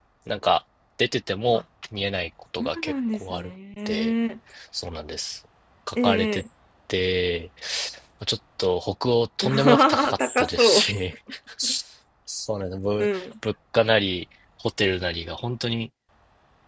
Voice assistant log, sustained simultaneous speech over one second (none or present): present